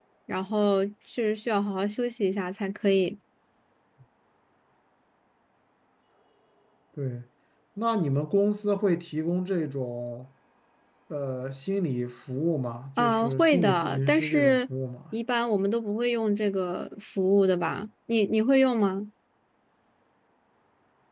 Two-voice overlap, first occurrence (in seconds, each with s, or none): 13.0 s